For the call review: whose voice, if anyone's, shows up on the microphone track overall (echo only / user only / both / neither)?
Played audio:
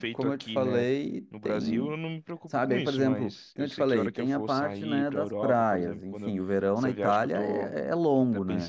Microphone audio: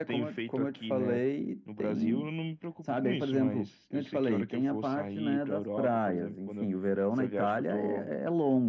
echo only